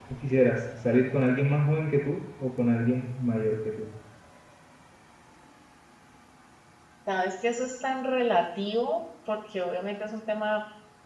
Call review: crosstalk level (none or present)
none